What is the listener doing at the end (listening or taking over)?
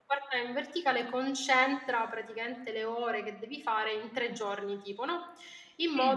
listening